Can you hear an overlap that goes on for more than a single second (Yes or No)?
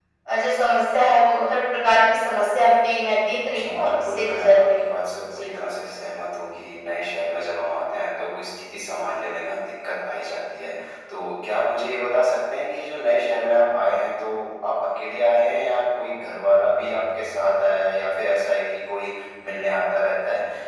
Yes